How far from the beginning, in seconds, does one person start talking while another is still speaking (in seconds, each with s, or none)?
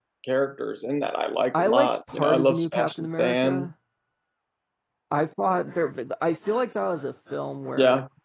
1.5 s